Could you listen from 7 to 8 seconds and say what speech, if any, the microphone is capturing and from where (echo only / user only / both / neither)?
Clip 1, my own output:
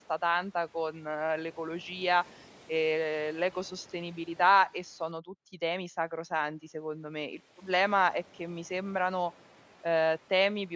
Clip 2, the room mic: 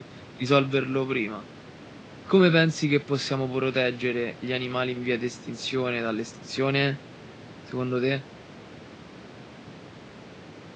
user only